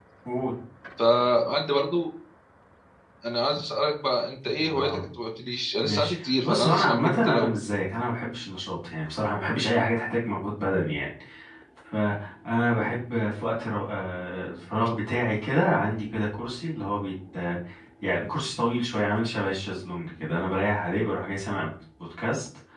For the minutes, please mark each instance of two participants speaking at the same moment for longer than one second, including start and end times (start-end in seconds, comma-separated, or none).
5.8-7.5